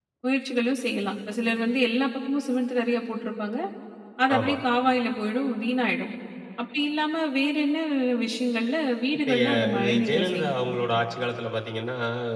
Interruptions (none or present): present